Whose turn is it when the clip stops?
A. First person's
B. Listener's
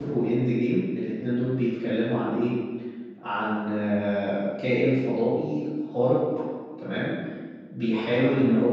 A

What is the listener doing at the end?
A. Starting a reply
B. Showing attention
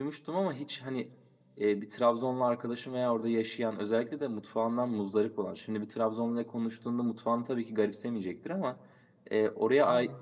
B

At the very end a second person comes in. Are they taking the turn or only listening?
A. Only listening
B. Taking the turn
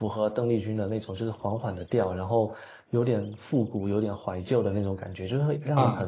B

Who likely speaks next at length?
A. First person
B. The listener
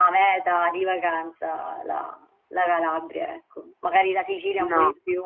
A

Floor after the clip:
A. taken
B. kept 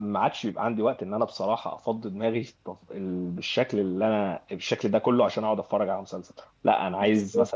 B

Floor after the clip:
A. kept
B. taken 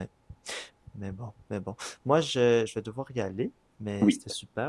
A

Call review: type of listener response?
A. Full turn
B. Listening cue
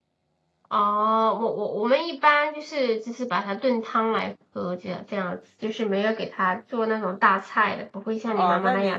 A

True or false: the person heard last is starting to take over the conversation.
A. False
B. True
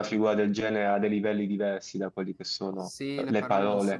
B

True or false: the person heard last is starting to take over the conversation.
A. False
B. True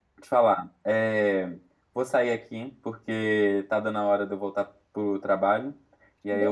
A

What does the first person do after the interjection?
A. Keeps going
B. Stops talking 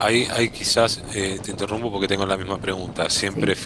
A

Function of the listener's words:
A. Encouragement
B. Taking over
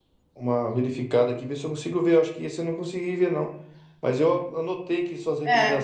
A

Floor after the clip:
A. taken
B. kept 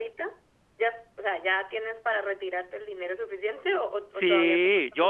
A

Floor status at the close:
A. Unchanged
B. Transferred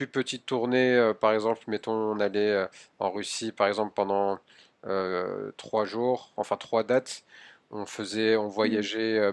A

